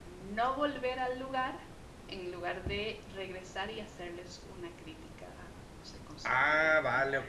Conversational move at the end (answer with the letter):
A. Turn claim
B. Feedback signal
A